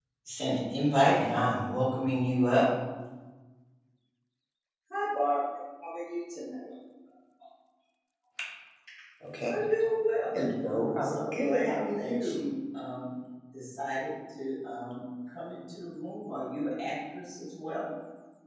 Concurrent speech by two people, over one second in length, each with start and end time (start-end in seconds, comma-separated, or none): 10.6-12.5